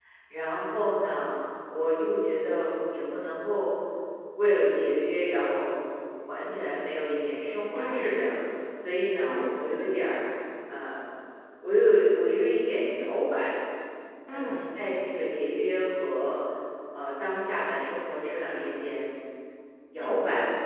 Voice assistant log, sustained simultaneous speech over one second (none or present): none